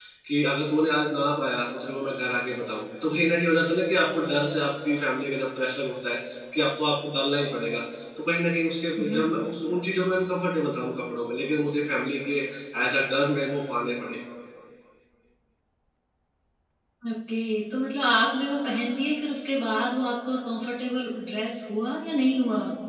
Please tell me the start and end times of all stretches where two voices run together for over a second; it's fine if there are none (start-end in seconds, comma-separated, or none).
none